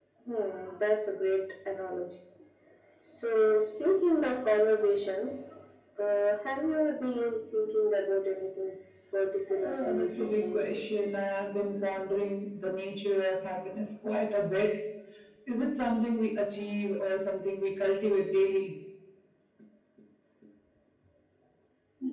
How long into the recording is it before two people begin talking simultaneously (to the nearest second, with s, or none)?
9 s